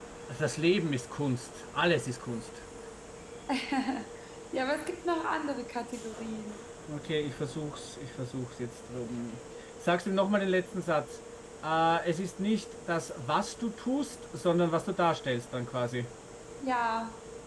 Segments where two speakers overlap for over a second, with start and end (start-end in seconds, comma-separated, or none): none